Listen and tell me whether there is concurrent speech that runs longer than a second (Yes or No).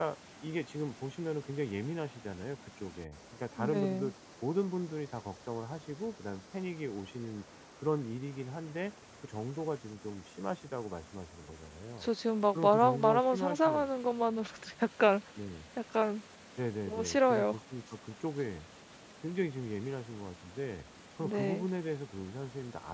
Yes